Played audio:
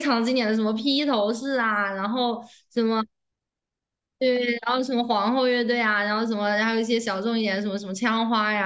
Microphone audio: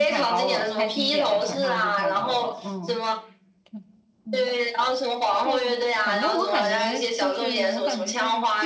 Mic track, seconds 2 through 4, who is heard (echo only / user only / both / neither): both